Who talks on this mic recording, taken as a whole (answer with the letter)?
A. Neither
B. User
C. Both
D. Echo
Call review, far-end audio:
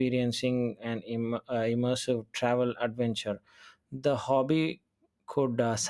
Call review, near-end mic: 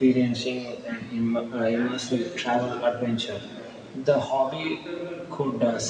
C